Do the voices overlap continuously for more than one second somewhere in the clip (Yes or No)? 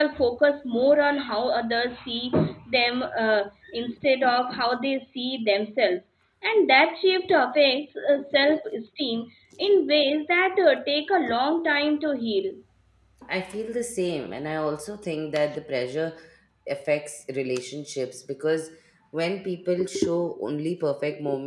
No